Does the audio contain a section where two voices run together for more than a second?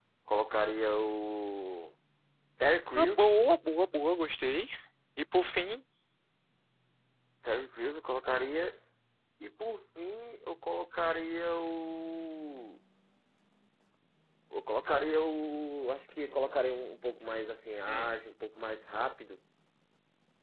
No

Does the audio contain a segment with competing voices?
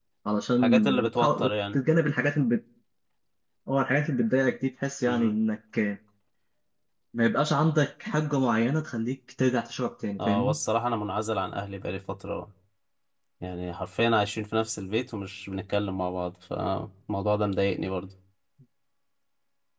Yes, from 0.6 s

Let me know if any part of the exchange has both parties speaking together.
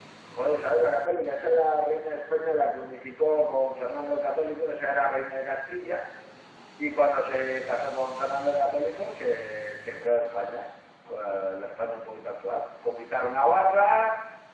No

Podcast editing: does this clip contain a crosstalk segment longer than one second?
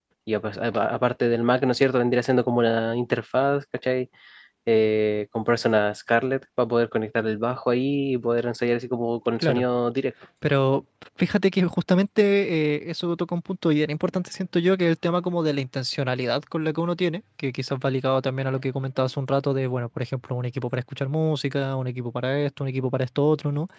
No

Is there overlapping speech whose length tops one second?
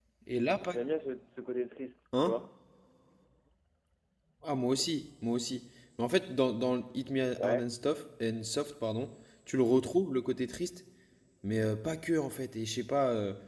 No

